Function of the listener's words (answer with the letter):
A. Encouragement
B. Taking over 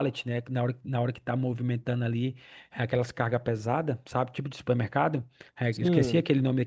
A